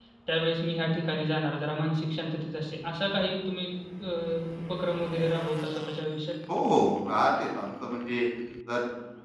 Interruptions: none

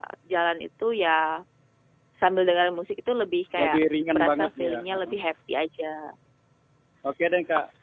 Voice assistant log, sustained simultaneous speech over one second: present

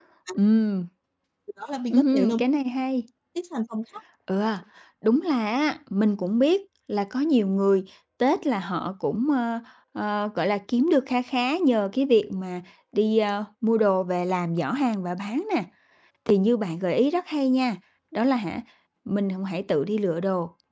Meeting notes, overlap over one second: none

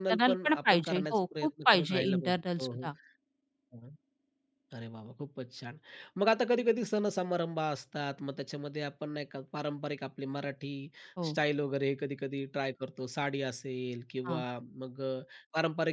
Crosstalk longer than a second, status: present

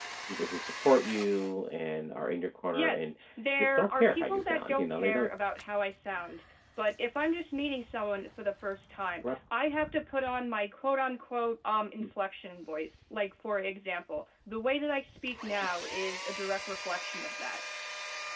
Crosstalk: present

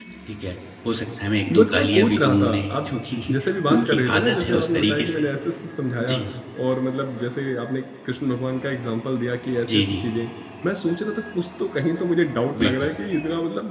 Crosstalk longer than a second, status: present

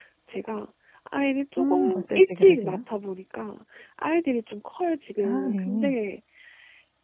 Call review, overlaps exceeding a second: present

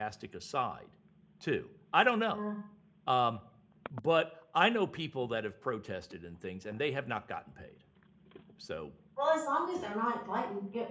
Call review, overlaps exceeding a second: none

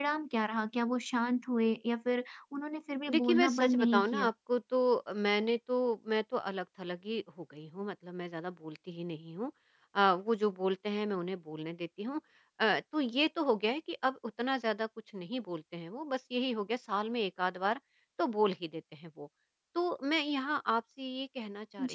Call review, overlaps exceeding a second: present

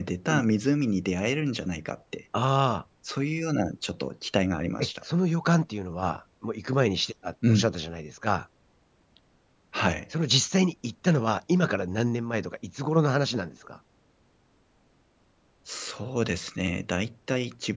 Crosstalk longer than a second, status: none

